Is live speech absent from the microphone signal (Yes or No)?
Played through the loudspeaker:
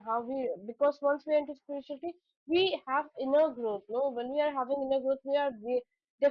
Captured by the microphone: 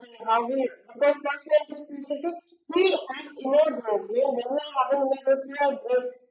Yes